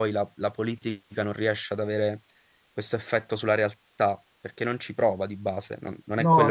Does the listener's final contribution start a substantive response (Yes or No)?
Yes